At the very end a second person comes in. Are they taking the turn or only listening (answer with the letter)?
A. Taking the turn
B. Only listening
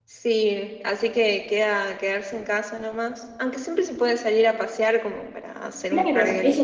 A